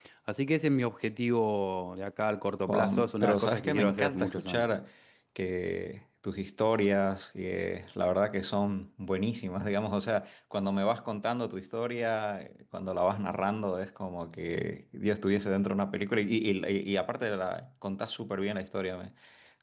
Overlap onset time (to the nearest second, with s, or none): 3 s